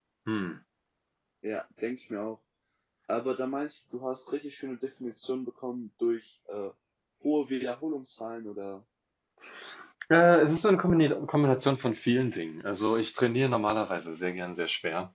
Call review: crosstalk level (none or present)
none